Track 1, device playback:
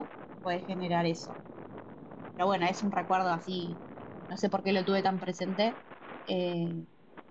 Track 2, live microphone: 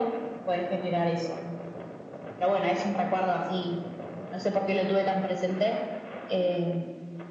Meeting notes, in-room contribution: none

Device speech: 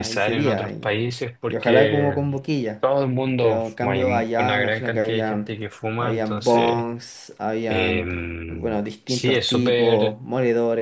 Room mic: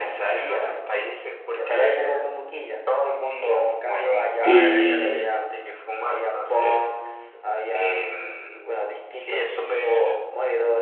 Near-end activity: present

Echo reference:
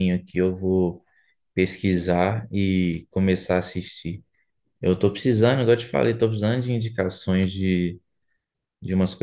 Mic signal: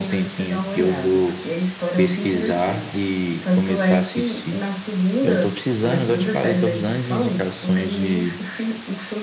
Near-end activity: present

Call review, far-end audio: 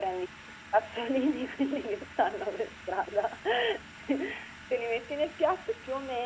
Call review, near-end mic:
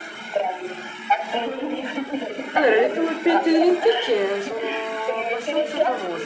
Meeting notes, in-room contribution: present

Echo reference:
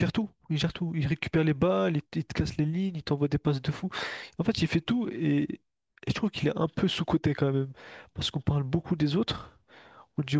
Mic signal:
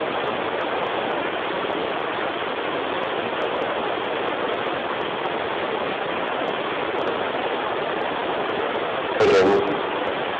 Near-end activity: present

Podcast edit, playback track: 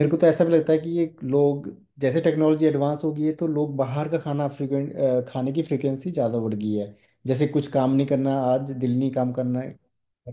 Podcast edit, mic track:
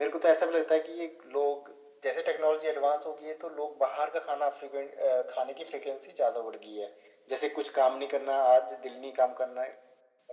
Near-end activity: none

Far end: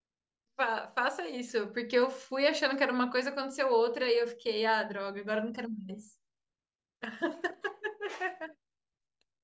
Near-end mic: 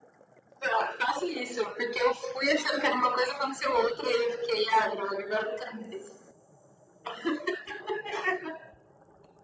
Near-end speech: none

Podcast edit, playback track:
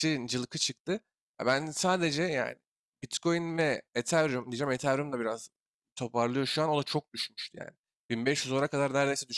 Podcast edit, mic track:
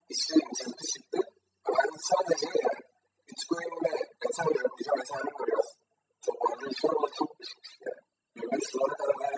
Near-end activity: none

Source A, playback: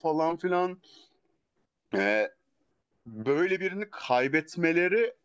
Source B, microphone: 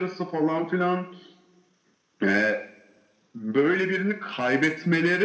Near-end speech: none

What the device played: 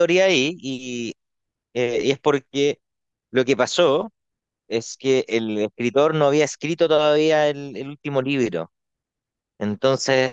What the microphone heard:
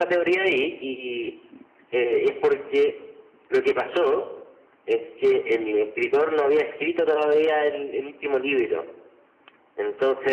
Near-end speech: none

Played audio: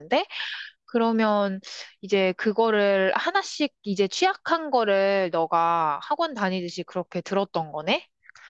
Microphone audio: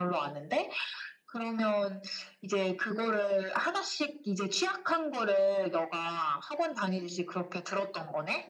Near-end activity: none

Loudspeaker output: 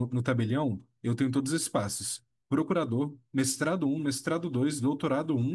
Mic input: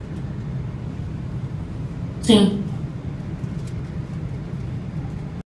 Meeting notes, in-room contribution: present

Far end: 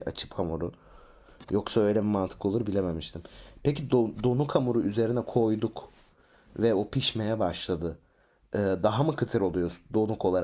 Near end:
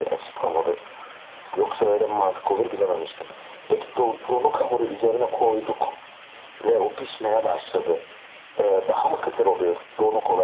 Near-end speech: none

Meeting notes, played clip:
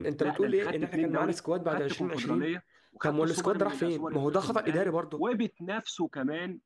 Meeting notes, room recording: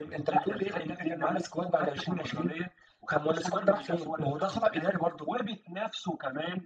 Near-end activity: none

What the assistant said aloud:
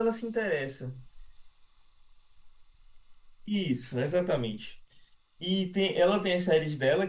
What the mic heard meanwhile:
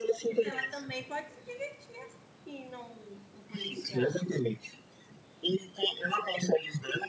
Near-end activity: present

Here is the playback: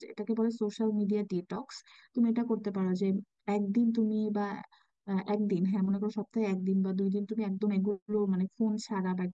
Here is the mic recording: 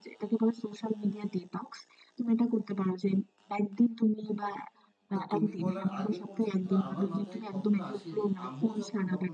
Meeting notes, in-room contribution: present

